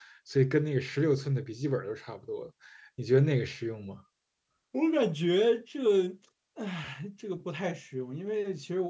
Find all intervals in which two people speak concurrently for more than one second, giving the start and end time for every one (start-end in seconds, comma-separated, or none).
none